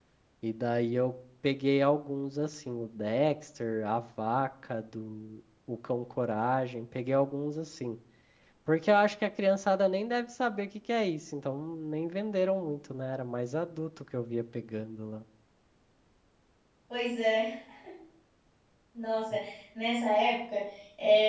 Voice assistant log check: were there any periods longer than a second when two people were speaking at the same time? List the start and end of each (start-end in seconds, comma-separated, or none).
none